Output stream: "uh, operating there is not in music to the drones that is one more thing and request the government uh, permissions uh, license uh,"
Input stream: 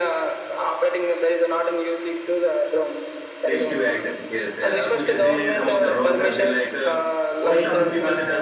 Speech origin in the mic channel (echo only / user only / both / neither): both